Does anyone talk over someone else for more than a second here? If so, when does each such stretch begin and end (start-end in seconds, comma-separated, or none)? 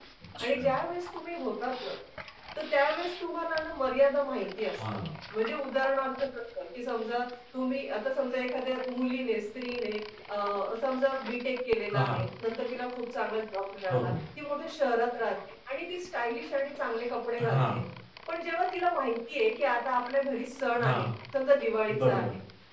none